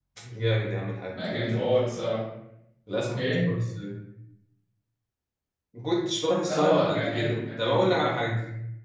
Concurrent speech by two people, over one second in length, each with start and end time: 6.4-7.8

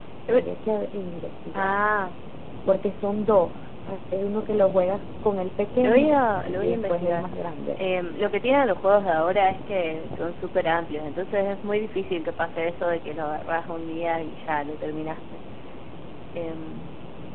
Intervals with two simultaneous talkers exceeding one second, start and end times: 5.8-7.2

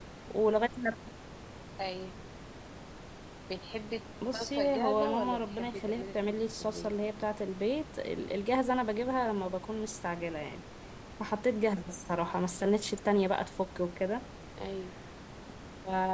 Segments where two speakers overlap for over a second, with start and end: 4.4-6.9

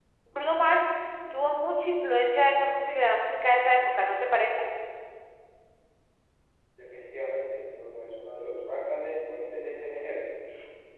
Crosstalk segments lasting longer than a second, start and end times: none

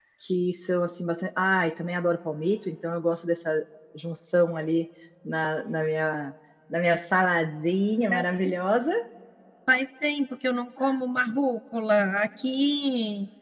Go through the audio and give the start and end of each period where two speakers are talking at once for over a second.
none

